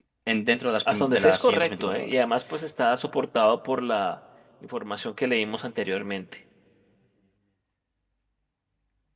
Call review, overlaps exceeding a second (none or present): present